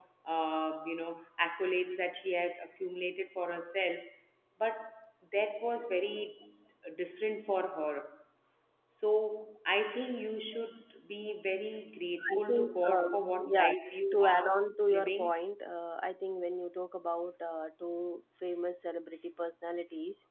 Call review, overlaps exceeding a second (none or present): present